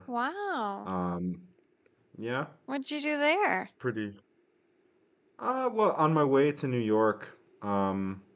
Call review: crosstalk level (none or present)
none